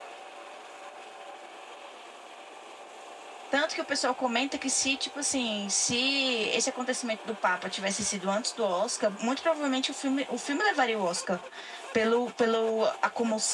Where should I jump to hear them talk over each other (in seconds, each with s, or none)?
none